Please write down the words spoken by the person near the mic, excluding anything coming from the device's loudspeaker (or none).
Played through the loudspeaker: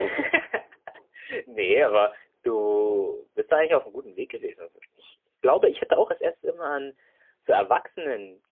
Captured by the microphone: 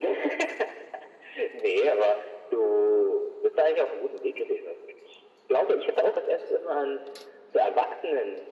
none